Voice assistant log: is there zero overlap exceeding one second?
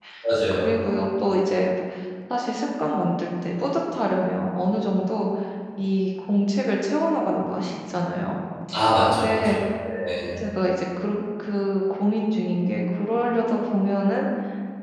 Yes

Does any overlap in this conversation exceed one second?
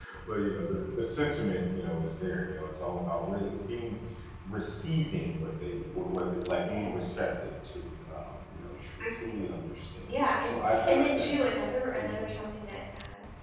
Yes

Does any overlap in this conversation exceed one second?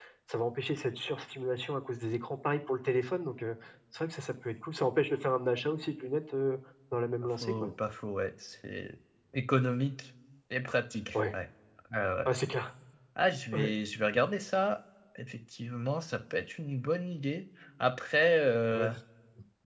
No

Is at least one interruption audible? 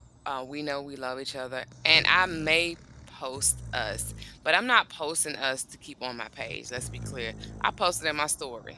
No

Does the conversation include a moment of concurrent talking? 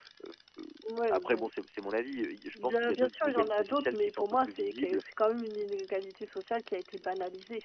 Yes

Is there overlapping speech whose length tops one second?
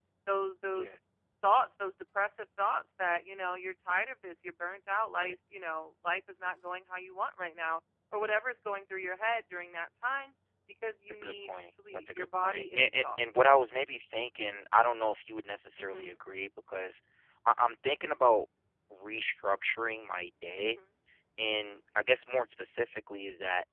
Yes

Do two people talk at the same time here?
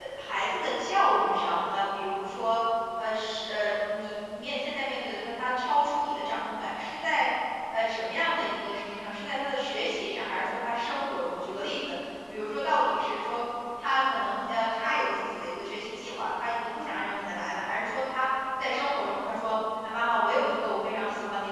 No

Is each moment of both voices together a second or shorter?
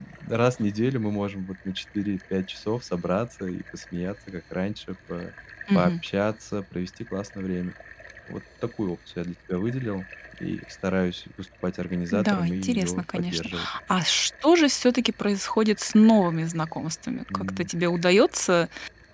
No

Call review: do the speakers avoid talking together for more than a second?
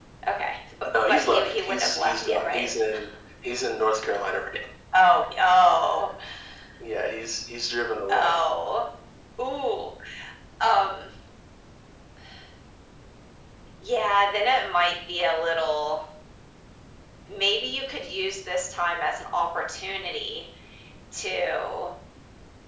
No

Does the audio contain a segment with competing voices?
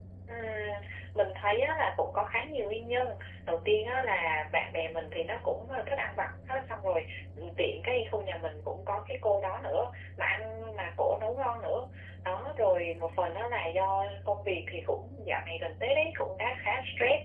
No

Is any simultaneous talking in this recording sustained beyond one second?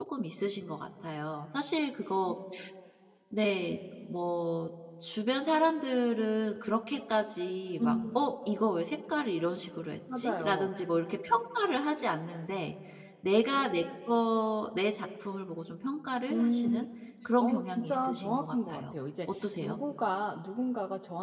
Yes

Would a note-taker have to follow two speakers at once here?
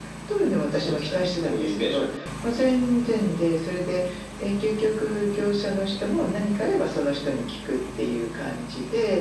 Yes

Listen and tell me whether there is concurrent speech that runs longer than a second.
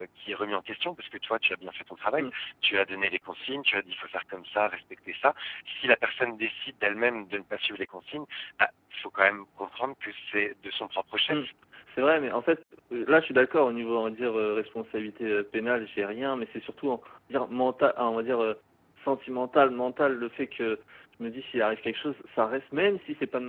No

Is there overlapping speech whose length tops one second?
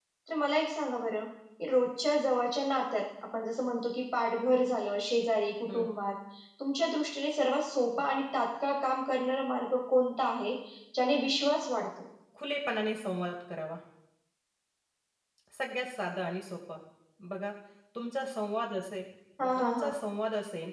No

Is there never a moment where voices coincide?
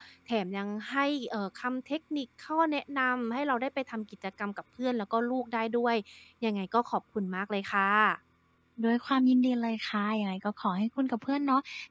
Yes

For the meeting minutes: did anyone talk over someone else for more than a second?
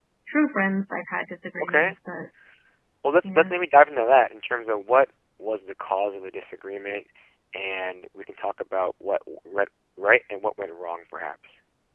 No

